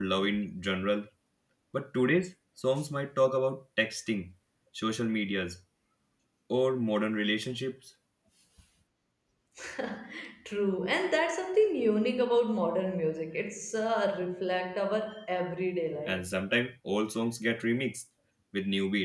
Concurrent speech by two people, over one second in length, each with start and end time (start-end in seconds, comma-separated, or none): none